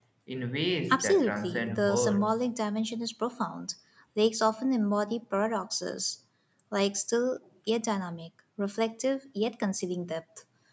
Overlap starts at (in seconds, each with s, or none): 0.9 s